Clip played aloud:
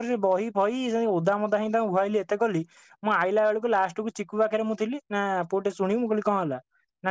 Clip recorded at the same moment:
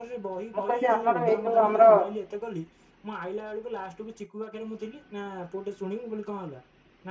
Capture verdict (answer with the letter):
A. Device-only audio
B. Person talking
B